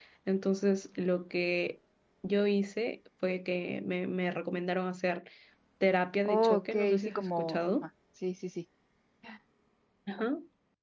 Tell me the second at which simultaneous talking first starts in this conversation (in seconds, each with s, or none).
6.2 s